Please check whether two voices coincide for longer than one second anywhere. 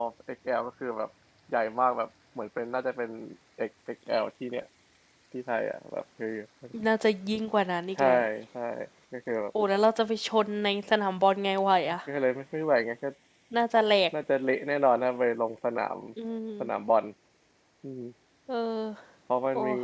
No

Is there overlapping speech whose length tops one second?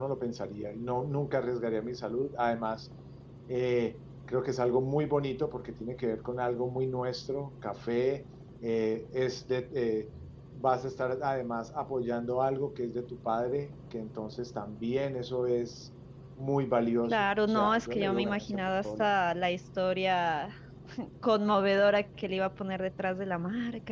Yes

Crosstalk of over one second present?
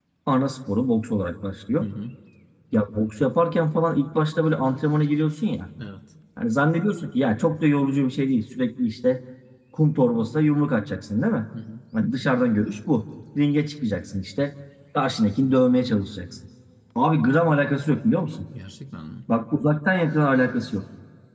No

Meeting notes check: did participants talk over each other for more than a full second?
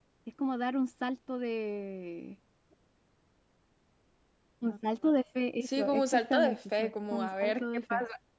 Yes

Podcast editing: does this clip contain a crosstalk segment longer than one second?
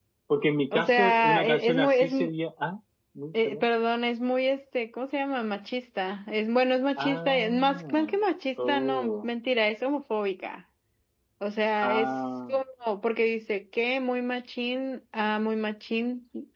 Yes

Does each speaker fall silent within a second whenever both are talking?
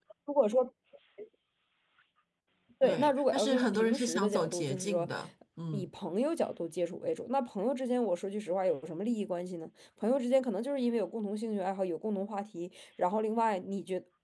No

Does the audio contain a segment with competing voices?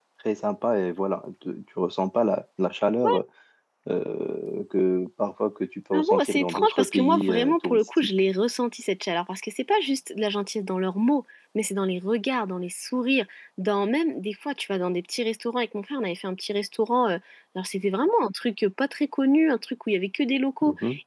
Yes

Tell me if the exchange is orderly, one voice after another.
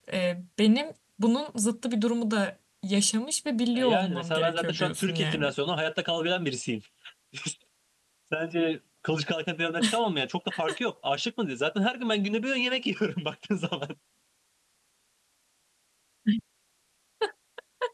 No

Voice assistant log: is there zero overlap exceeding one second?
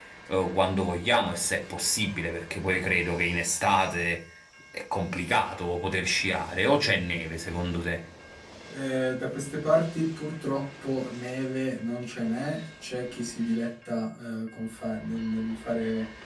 Yes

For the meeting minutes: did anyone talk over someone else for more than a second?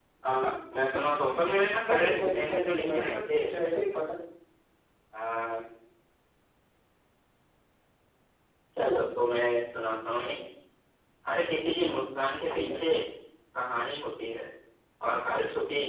Yes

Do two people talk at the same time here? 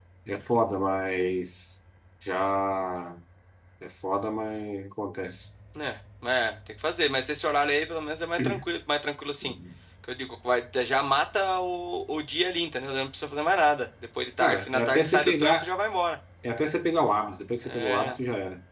Yes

